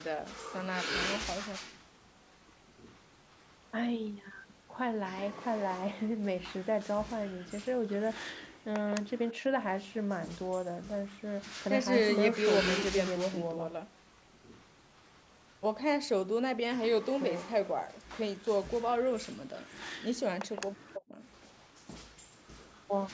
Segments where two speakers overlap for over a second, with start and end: 11.7-13.7

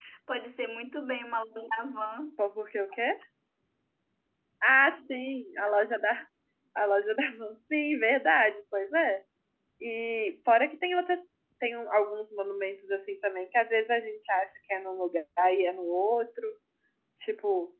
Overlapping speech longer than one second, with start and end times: none

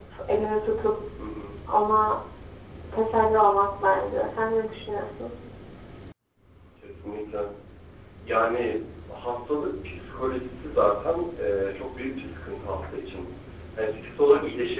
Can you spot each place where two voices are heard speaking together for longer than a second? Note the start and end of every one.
none

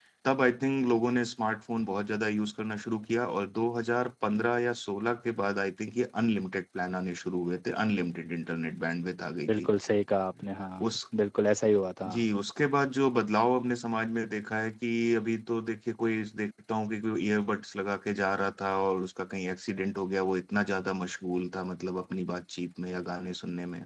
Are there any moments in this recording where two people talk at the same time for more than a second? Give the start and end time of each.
none

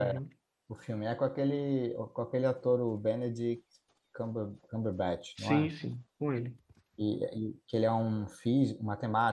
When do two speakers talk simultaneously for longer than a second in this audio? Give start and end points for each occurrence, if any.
none

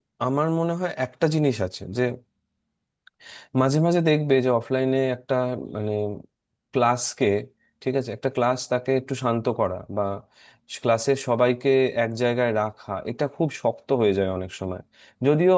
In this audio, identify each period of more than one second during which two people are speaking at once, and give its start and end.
none

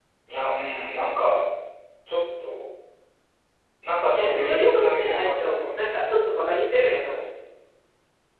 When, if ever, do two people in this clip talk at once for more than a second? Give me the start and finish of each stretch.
4.1-5.8

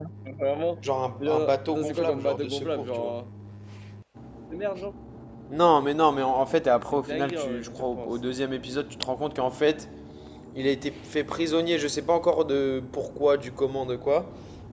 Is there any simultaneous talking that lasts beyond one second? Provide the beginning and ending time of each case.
1.2-3.1, 6.8-8.2

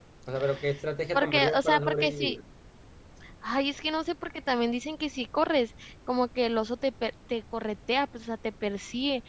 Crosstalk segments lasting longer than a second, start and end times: 1.1-2.4

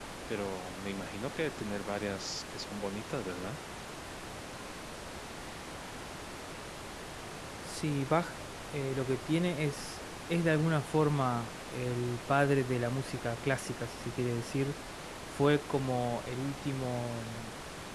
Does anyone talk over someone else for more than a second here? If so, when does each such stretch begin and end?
none

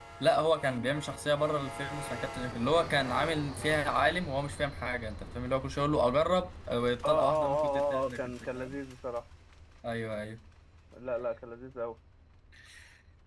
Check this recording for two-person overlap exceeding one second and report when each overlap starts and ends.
7.0-8.7

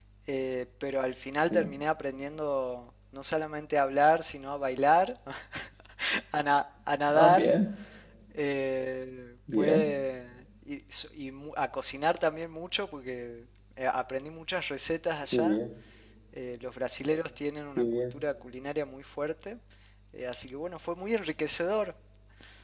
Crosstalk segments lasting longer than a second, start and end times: none

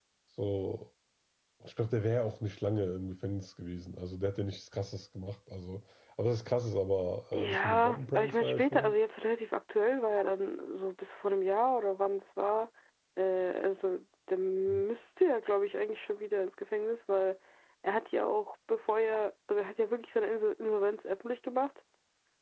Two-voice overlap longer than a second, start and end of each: 7.3-8.9

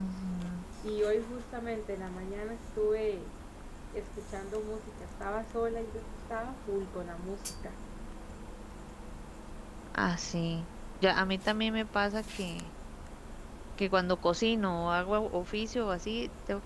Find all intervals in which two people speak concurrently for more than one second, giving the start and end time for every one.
none

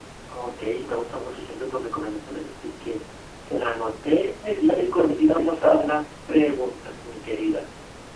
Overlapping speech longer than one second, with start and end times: 4.7-5.9

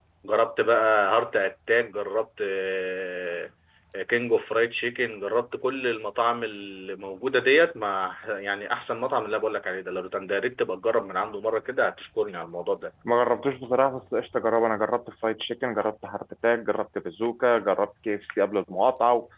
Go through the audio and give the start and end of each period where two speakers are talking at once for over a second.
none

